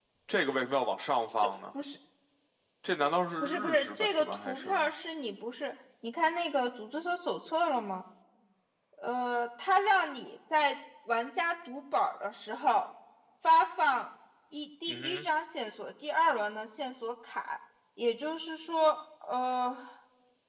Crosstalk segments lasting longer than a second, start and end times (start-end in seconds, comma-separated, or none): 3.4-4.9